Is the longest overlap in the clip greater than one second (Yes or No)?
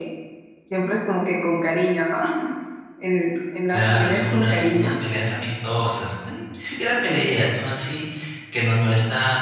Yes